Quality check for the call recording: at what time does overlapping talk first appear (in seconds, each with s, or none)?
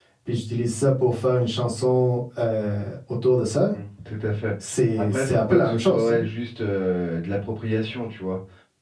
5.0 s